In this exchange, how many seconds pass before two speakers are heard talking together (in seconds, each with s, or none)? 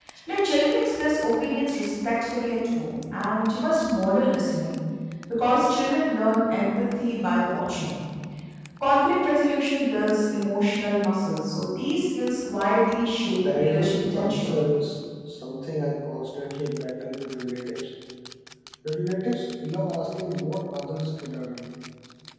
13.2 s